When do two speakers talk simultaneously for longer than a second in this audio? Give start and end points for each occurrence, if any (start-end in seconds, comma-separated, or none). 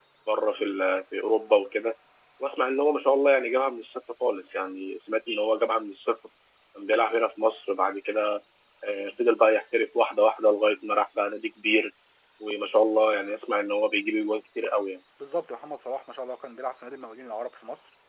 none